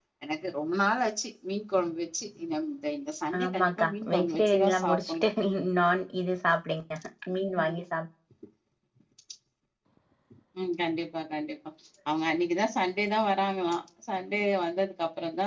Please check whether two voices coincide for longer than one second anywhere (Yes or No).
Yes